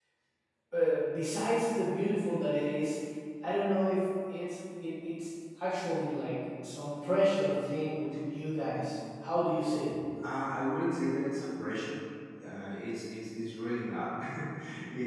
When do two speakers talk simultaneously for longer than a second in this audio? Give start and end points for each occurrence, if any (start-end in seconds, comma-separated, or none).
none